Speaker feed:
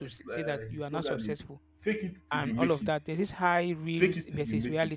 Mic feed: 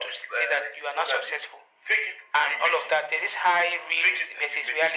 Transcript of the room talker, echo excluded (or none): none